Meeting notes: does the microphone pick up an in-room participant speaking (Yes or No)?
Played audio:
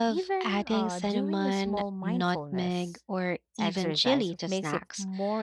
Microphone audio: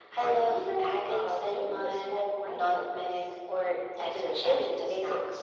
No